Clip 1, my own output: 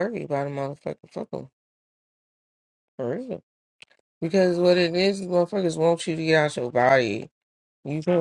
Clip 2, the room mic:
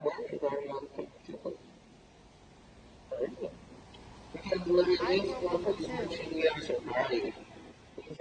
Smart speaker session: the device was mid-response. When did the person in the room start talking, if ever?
5.0 s

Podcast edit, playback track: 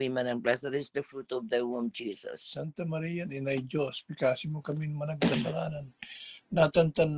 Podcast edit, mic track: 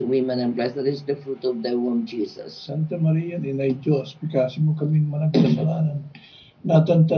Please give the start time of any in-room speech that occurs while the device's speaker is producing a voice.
none

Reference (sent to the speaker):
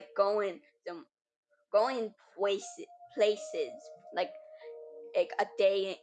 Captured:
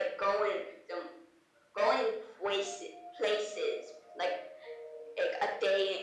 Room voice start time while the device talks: none

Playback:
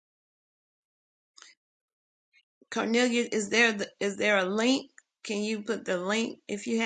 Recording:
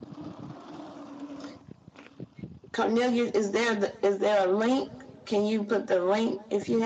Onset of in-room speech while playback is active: none

